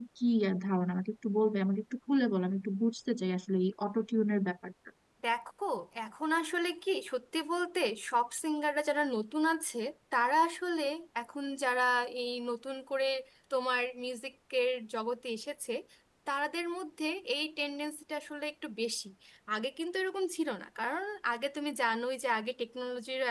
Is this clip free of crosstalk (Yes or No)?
Yes